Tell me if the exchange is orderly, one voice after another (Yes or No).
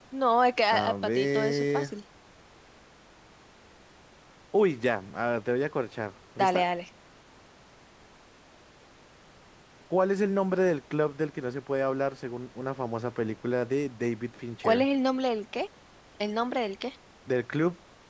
No